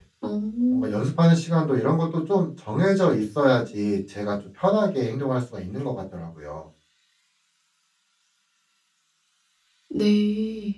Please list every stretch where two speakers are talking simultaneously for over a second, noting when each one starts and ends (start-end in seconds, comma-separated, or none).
none